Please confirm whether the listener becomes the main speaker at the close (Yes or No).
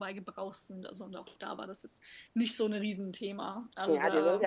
Yes